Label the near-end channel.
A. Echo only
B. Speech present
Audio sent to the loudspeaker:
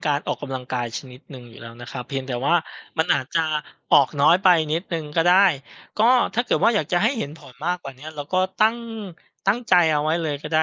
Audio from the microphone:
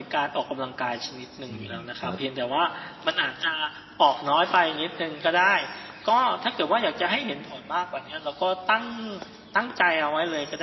B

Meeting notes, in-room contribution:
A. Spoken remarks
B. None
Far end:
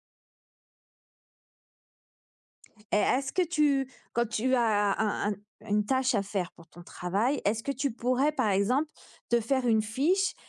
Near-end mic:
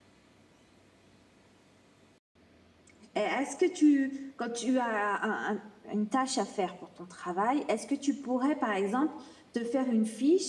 B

